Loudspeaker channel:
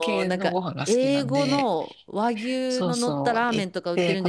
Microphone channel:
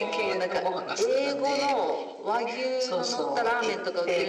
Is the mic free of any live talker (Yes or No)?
Yes